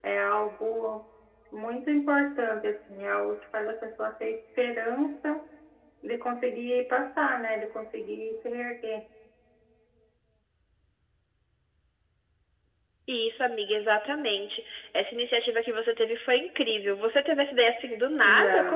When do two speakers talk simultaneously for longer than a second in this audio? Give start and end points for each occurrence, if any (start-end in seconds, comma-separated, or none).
none